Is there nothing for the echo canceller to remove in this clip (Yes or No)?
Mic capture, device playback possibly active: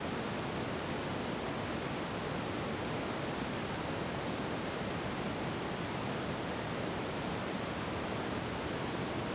Yes